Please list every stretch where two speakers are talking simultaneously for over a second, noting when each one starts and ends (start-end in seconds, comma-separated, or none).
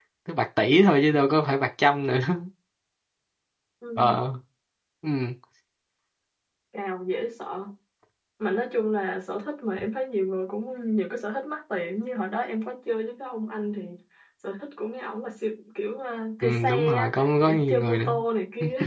16.4-18.1